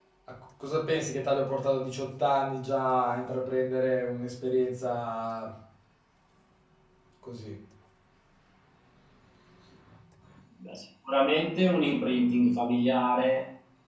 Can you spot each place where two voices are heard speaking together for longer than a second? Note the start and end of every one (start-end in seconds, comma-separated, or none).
none